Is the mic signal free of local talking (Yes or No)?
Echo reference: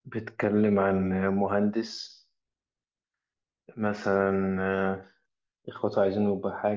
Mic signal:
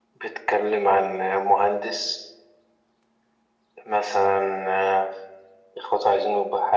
Yes